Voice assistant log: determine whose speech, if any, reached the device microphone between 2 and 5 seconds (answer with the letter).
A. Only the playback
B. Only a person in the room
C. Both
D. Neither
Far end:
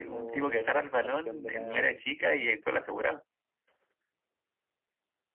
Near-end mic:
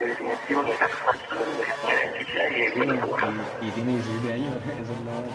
C